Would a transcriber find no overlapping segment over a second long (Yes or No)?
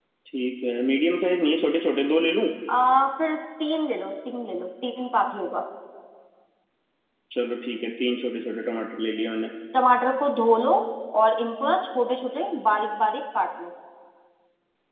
Yes